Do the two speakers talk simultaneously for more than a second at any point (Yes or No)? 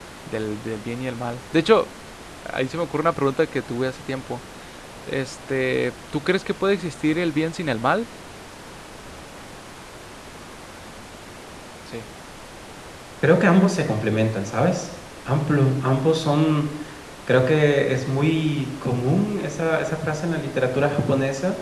No